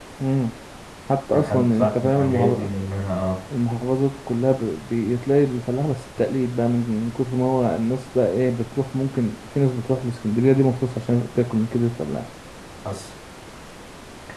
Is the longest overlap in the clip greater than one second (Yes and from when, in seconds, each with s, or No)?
Yes, from 1.3 s